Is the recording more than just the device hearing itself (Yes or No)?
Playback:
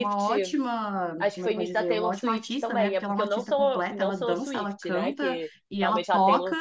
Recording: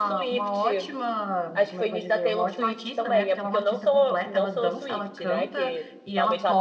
No